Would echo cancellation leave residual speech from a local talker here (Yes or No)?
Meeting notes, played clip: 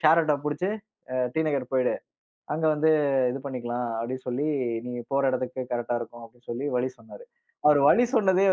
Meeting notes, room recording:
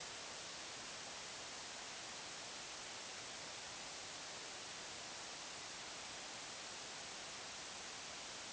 No